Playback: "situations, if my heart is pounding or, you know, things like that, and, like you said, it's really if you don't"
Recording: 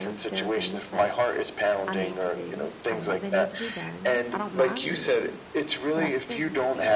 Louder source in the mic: echo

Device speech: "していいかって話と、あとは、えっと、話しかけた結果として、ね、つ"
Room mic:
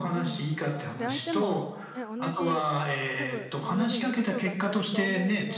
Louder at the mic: echo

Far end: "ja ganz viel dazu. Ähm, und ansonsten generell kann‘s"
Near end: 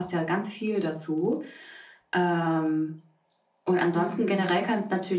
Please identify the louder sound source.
echo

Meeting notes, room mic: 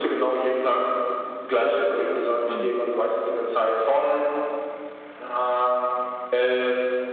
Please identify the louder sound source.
echo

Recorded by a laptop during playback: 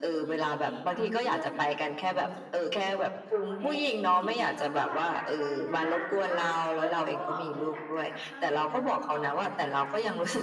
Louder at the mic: echo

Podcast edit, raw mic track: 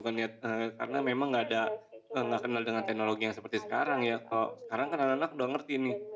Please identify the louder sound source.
user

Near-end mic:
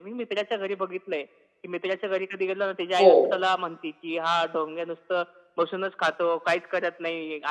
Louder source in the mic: user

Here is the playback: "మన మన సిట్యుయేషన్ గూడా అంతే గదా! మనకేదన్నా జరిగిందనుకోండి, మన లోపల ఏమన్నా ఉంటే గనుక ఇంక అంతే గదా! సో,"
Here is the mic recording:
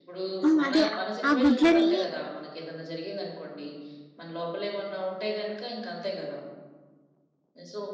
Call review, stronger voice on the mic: user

